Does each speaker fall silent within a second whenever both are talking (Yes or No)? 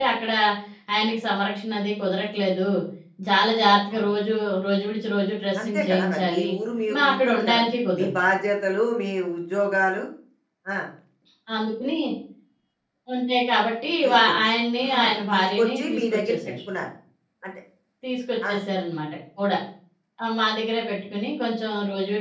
No